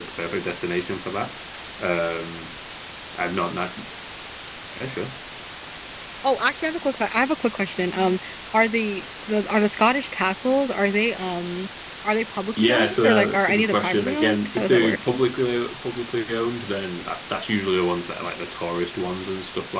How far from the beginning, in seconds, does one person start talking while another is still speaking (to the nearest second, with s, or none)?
13 s